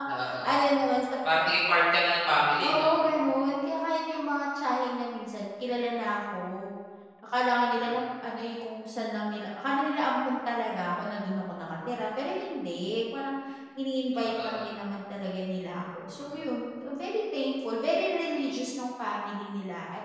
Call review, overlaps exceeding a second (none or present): none